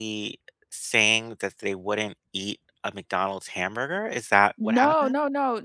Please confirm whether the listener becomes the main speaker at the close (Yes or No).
Yes